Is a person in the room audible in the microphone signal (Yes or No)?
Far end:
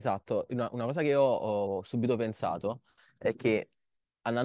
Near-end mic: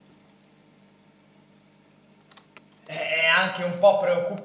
Yes